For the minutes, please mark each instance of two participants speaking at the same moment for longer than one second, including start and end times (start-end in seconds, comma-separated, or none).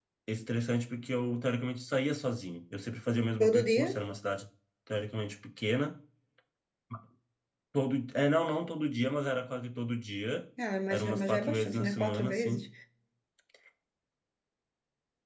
10.9-12.7